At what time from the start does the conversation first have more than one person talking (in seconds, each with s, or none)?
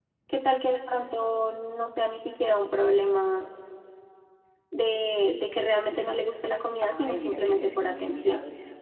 6.8 s